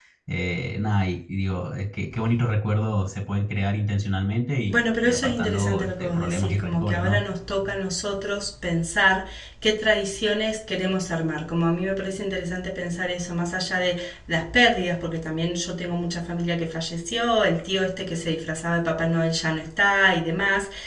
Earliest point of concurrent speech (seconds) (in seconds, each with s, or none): 4.7 s